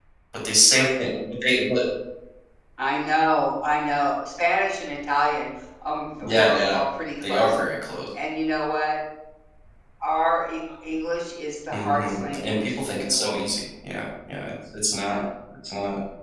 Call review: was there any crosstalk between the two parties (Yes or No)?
Yes